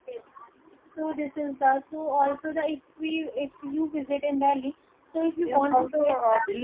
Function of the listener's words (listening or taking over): taking over